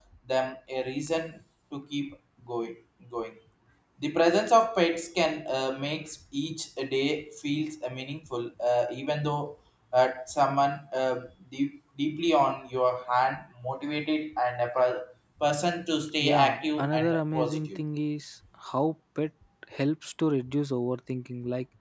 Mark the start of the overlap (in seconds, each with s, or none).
16.2 s